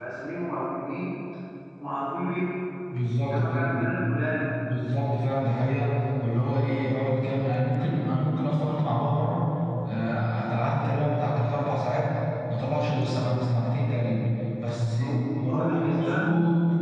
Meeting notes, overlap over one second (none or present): present